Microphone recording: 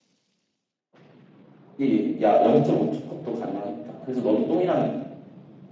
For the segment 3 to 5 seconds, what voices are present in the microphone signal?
echo only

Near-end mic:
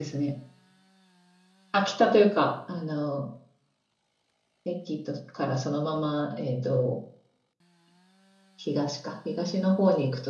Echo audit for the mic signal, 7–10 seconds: user only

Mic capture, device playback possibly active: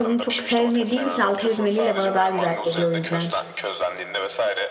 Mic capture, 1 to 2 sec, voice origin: both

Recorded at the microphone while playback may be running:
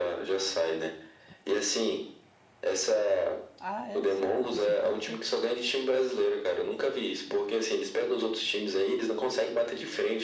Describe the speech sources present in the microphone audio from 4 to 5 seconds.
both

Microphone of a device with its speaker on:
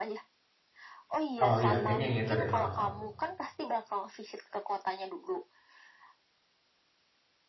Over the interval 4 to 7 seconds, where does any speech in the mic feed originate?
echo only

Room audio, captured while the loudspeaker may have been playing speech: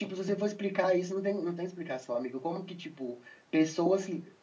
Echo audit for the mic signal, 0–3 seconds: user only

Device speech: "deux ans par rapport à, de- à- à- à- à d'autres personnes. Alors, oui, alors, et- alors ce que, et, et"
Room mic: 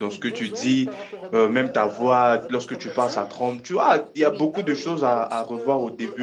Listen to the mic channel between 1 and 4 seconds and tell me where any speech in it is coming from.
both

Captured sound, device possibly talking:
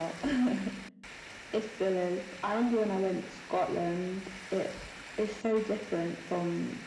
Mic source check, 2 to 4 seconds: echo only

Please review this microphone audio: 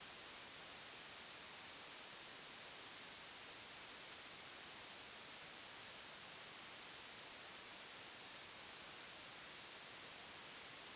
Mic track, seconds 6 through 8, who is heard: neither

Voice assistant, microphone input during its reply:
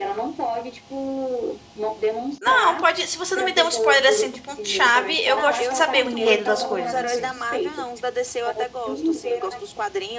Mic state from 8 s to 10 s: echo only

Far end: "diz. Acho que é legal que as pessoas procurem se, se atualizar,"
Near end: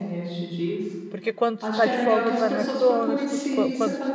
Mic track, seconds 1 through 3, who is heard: both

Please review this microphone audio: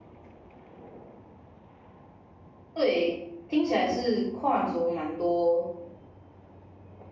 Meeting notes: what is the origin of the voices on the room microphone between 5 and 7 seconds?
user only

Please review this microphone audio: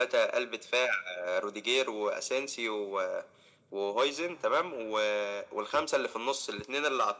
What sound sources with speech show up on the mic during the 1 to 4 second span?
echo only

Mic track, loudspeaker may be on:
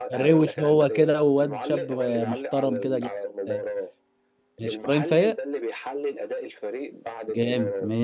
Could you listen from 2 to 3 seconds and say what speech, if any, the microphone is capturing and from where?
both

